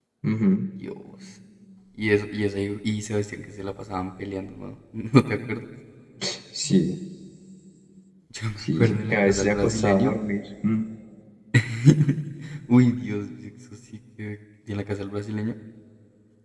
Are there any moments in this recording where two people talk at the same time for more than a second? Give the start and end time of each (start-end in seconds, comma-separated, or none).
8.6-10.1